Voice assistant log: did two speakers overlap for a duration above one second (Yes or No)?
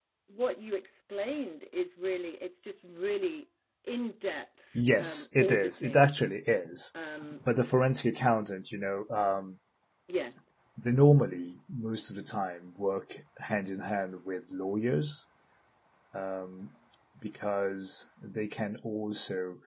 Yes